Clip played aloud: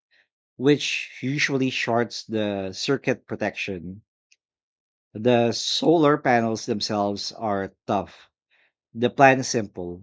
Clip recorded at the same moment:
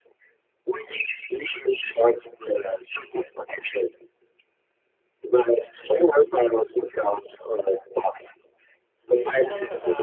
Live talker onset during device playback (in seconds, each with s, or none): 9.1 s